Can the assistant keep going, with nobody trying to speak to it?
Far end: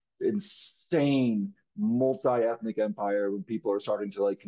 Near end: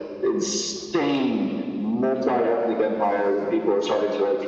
Yes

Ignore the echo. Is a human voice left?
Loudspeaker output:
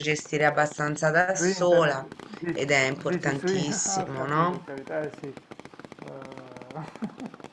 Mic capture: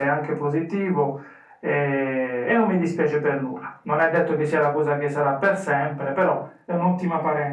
Yes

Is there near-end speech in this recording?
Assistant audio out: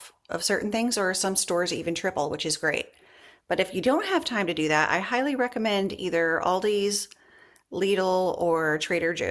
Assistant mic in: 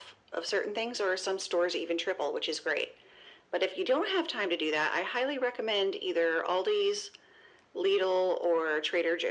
No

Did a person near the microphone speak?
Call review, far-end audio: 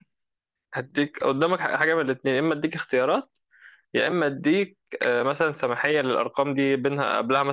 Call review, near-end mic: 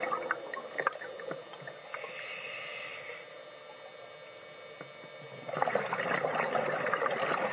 No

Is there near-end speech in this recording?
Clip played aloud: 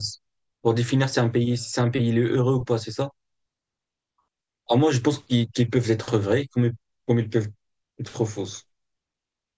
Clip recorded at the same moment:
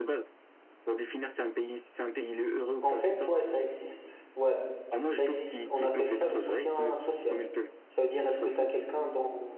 Yes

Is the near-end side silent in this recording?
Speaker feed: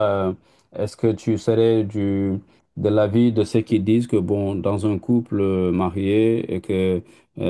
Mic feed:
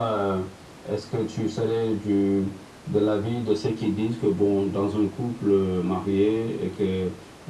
Yes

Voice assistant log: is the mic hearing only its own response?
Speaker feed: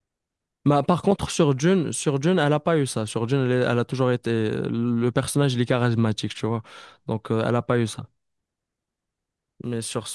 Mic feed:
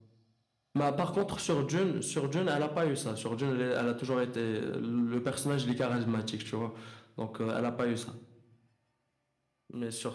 Yes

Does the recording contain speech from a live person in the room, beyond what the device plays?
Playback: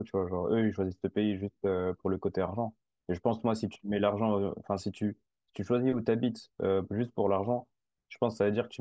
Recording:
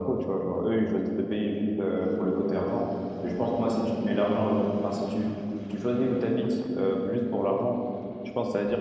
No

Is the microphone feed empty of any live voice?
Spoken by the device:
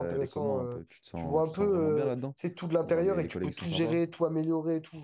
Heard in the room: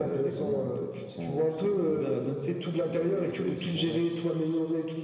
Yes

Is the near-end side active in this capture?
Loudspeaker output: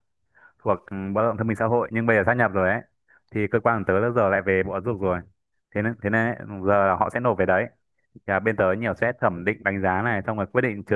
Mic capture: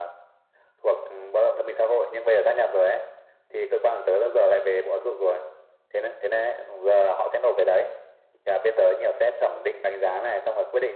No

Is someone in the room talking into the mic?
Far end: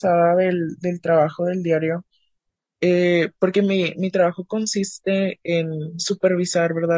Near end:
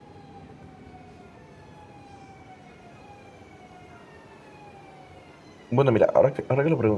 Yes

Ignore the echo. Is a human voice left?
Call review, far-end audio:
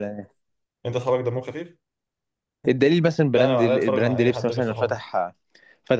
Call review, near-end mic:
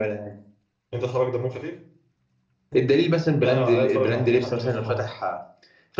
No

